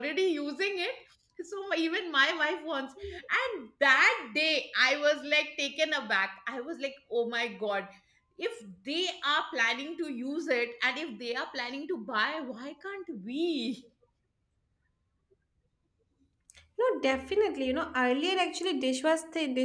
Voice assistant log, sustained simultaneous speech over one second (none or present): none